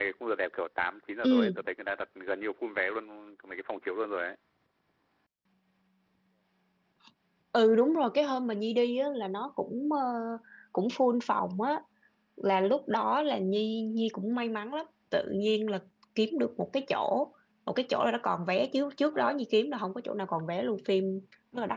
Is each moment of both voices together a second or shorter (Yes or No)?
Yes